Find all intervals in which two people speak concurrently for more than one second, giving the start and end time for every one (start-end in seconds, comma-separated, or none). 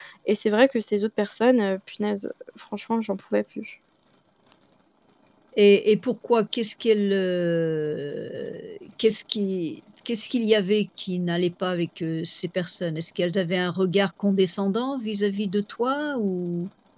none